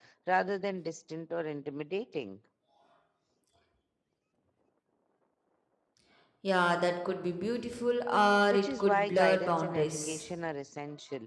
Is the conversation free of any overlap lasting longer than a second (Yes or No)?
No